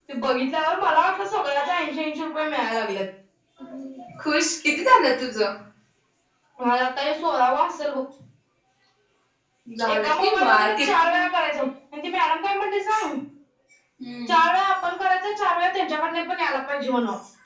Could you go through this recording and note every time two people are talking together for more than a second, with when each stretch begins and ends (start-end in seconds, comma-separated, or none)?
9.9-11.1